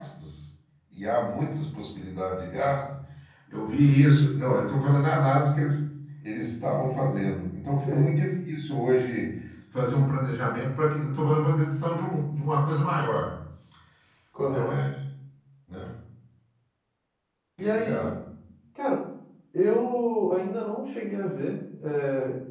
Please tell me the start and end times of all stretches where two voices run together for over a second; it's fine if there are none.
none

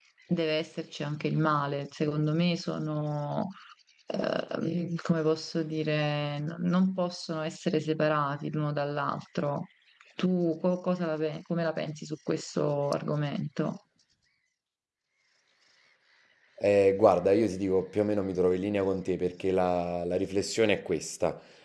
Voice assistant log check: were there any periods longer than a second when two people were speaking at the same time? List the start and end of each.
none

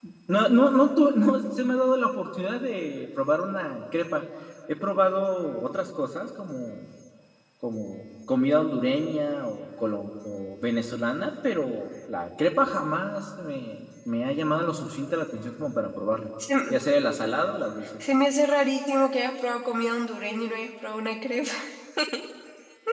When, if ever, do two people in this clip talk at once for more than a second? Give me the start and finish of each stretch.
none

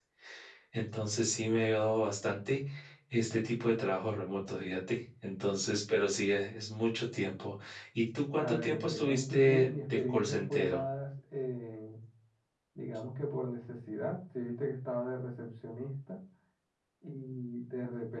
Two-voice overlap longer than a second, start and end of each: 8.4-10.8

